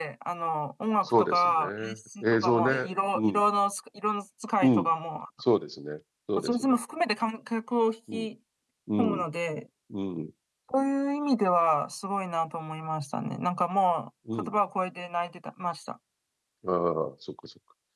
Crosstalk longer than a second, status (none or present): present